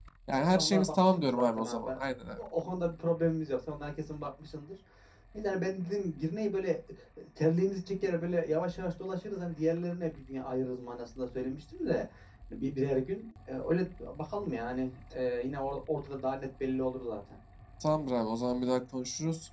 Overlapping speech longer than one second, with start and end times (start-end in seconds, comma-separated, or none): 0.5-2.0